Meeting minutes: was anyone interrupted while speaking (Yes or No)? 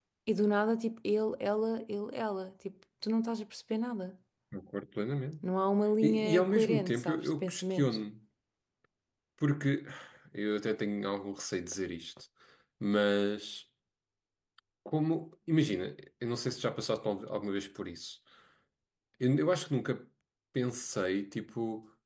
Yes